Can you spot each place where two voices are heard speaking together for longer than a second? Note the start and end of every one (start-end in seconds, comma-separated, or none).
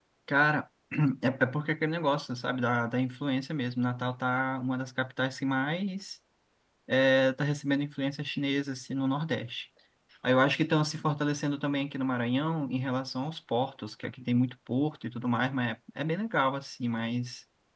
none